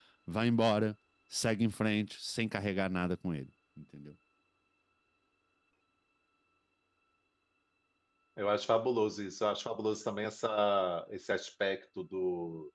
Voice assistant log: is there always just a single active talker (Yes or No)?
Yes